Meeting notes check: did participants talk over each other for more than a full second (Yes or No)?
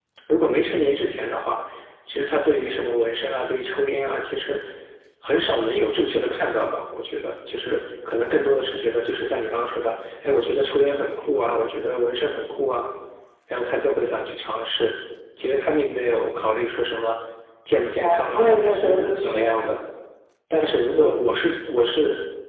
Yes